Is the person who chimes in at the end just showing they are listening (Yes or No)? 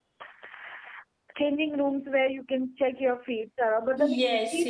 No